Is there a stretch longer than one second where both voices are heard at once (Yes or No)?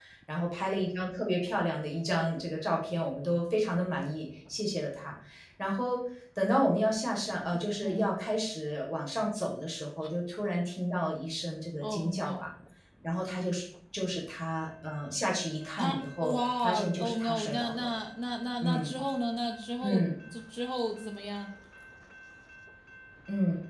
Yes